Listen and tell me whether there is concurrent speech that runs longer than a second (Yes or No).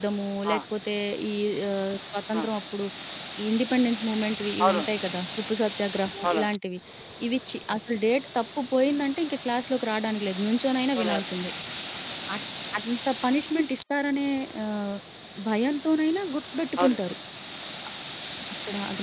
No